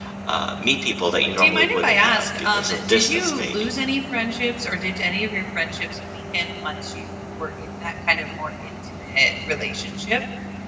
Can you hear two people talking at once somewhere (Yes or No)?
Yes